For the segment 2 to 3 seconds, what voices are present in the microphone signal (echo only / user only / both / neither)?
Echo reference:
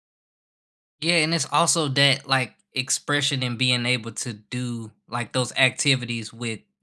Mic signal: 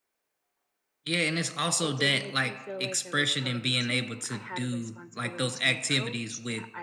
both